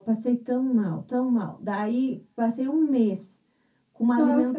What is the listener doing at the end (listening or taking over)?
listening